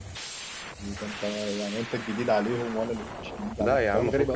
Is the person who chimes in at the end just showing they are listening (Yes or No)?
No